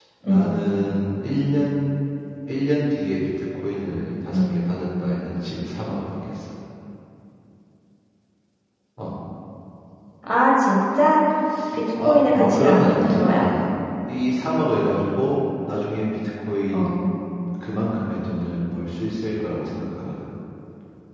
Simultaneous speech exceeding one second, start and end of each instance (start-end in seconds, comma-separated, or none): 12.0-13.4